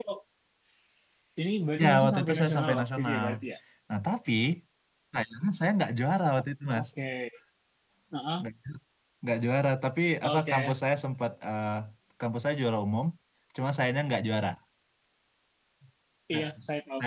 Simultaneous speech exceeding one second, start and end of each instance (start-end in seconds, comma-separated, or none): 1.8-3.3